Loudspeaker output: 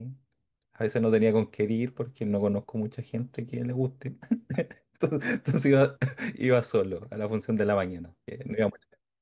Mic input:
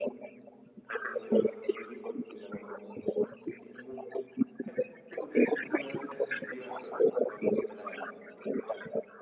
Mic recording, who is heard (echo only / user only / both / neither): echo only